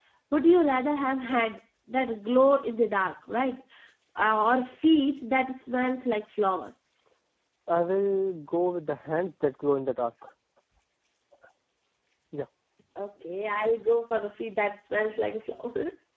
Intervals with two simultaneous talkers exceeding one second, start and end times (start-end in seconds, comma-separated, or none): none